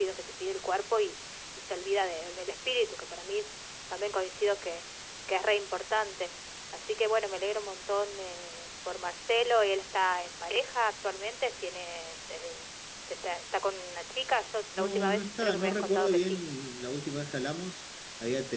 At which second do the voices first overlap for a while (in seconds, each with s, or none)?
14.8 s